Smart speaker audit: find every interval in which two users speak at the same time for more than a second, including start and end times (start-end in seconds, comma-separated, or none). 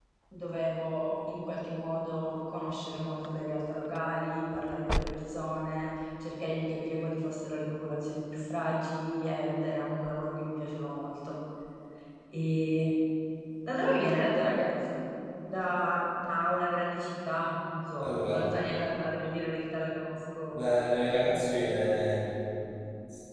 none